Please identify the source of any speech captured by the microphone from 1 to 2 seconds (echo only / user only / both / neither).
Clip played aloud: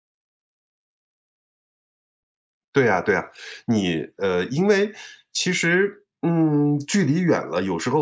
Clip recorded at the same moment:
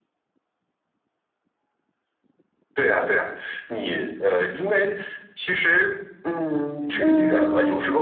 neither